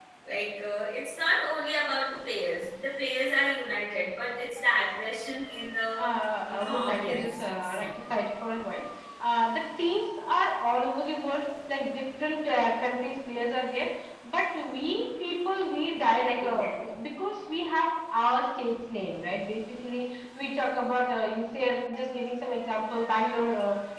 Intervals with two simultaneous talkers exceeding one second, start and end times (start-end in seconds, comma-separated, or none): 6.5-7.9